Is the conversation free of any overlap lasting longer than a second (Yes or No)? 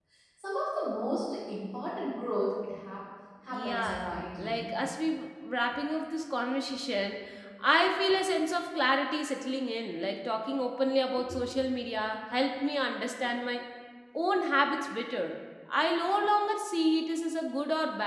No